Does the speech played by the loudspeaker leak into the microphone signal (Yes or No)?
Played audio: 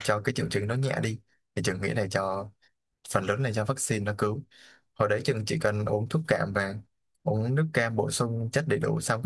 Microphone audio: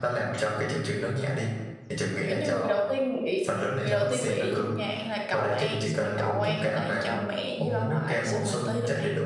Yes